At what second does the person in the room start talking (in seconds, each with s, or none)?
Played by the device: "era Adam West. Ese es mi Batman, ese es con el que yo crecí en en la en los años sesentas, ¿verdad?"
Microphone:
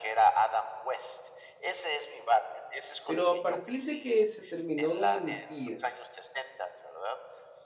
3.0 s